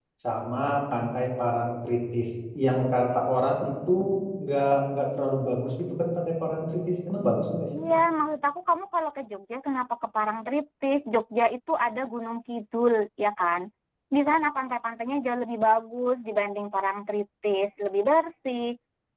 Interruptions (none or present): none